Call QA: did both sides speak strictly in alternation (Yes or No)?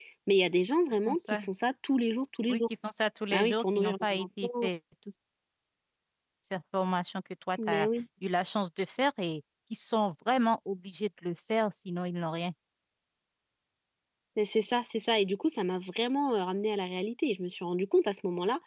No